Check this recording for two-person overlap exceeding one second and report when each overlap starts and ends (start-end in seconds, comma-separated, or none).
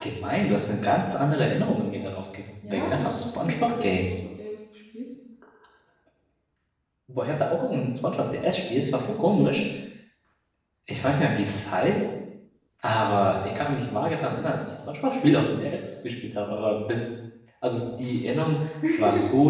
2.7-3.9